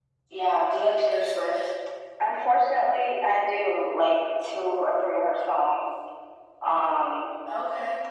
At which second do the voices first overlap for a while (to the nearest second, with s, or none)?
none